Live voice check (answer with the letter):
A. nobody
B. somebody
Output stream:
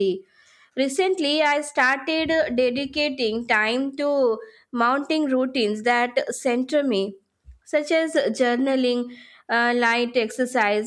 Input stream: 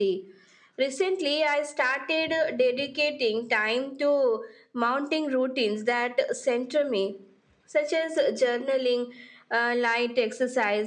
A